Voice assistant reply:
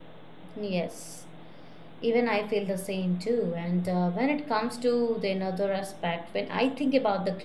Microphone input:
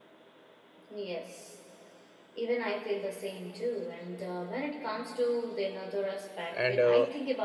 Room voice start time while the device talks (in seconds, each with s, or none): 6.5 s